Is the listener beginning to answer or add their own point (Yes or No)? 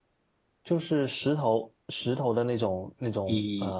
Yes